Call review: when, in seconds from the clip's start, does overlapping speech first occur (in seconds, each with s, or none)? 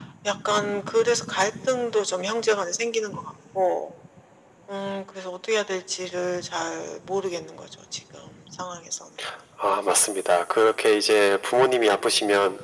none